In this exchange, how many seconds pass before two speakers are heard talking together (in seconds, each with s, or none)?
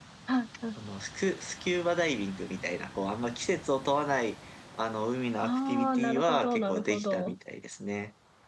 5.4 s